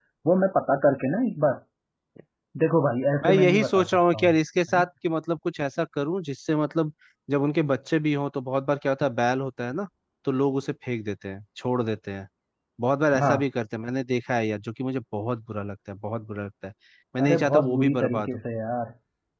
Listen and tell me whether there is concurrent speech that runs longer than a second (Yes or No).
Yes